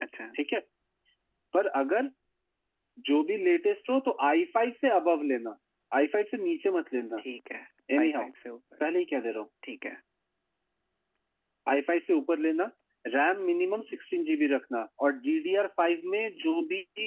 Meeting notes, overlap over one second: none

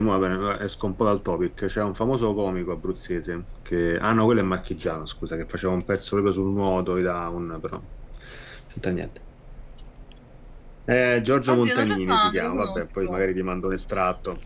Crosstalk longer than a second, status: present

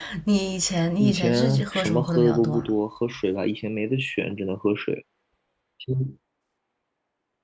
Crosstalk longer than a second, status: present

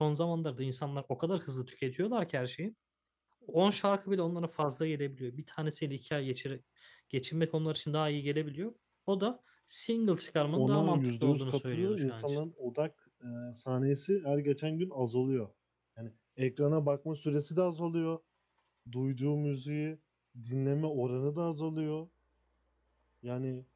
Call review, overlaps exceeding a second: present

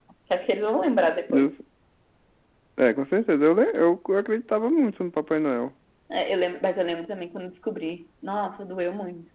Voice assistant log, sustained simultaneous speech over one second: none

